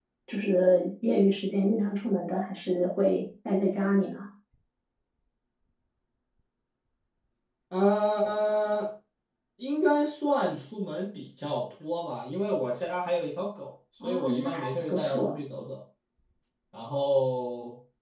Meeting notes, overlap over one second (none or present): present